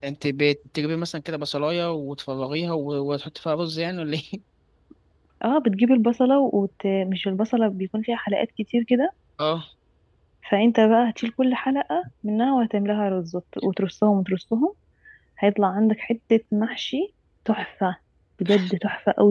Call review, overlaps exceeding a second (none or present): none